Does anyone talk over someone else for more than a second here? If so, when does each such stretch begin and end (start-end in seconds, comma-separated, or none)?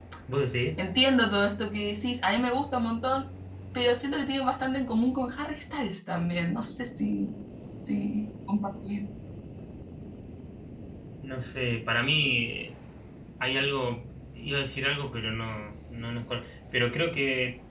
none